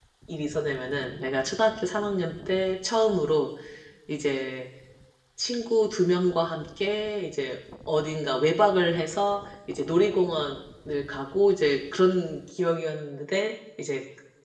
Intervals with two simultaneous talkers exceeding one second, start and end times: none

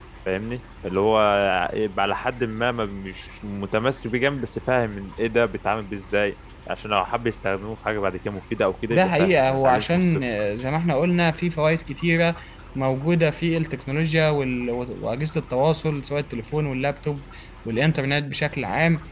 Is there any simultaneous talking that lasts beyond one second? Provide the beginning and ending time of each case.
8.9-10.2

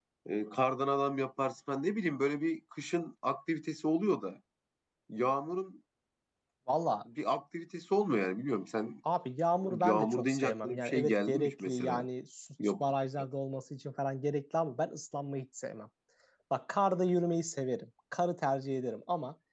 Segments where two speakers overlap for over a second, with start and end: 9.8-12.1

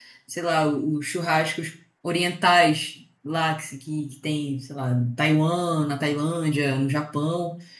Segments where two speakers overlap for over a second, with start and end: none

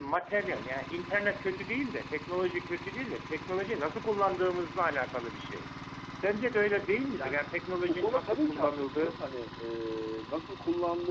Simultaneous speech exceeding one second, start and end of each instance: 7.9-9.2

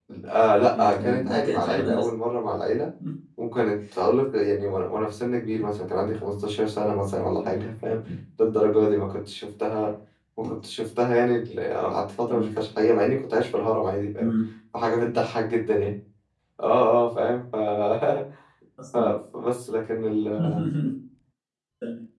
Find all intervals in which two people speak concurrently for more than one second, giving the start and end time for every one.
0.7-2.1

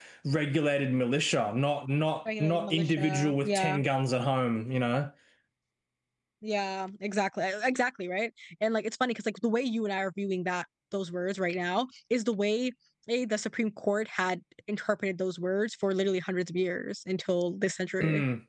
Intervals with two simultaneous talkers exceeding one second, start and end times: 2.4-3.8

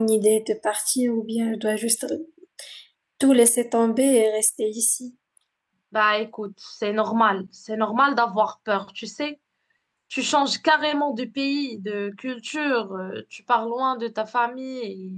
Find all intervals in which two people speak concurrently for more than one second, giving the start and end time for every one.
none

